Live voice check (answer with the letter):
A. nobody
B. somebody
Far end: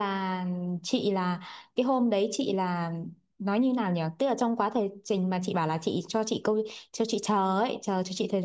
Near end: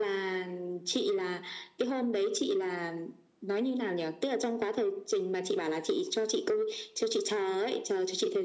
A